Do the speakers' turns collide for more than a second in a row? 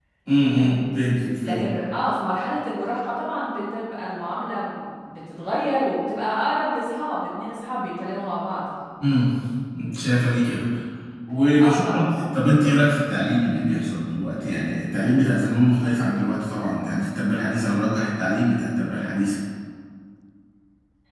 No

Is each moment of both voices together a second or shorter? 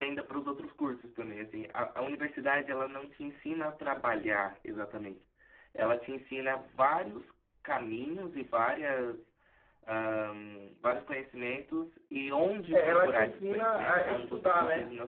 No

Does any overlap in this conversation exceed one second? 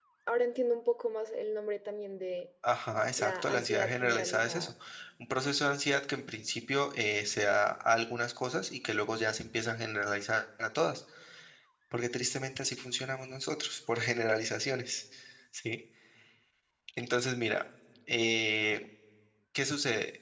Yes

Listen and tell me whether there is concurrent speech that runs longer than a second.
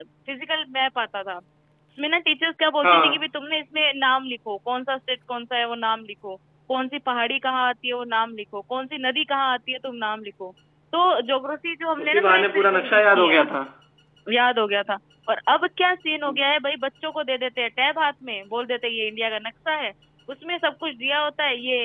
Yes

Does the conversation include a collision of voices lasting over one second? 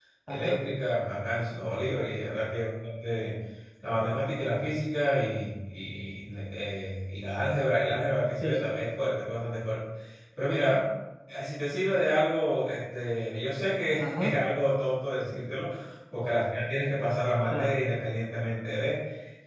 No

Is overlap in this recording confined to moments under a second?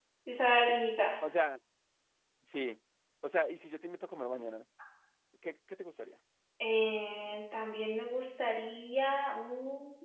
Yes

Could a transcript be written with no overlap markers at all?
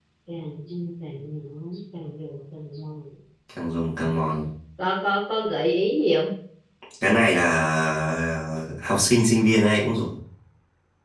Yes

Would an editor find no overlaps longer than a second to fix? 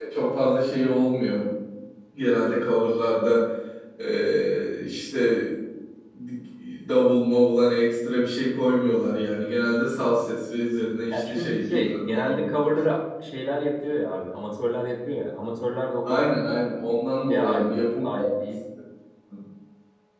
No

